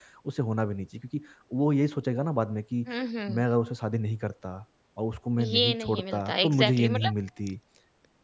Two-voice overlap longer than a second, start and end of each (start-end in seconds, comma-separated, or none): 5.5-7.1